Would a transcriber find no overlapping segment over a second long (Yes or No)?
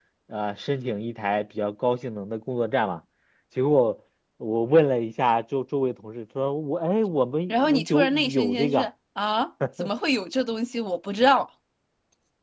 No